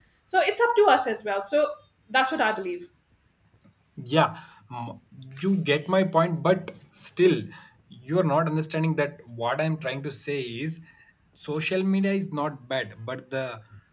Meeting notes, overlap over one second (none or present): none